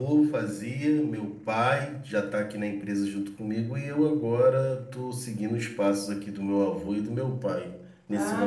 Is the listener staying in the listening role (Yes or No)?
No